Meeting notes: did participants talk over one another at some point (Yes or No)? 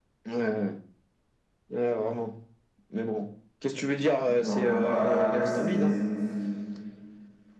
Yes